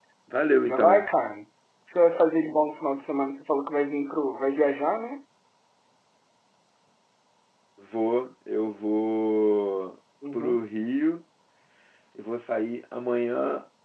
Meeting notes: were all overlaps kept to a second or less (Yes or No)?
Yes